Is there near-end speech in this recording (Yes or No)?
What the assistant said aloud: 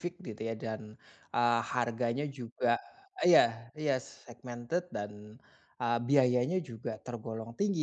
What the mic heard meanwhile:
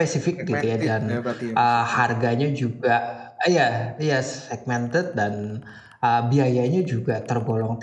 Yes